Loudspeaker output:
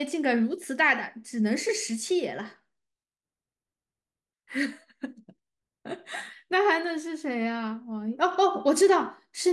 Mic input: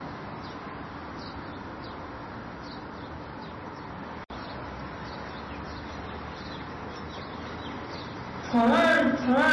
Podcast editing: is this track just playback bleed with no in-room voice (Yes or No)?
No